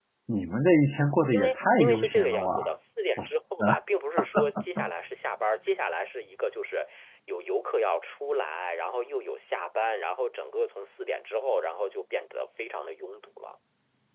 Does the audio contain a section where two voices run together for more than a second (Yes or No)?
Yes